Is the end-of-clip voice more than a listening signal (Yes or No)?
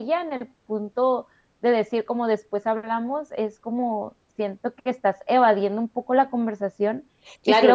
Yes